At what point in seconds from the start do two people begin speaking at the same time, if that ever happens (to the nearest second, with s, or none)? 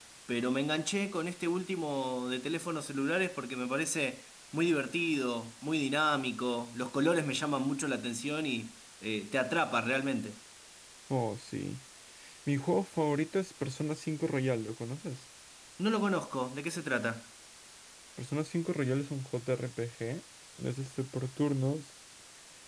none